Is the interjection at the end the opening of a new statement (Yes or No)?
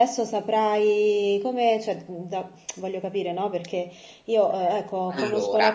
No